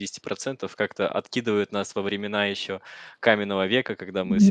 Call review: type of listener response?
listening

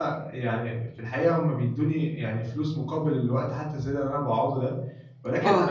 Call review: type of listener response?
listening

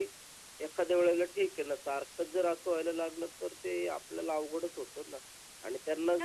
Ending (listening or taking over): listening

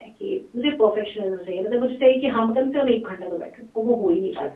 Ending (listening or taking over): taking over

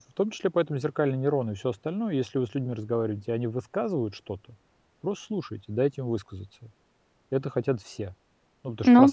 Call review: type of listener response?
taking over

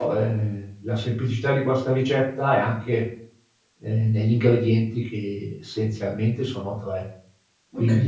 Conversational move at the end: listening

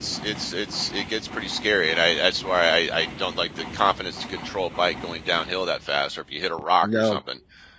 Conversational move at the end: listening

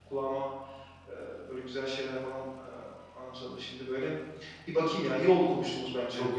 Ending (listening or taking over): taking over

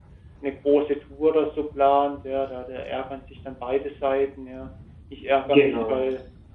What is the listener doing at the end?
listening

